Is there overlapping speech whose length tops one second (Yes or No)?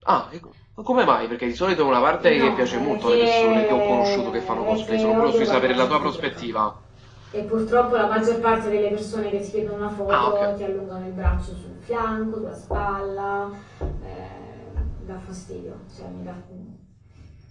Yes